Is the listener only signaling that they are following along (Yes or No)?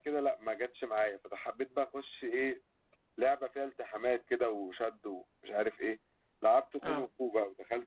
Yes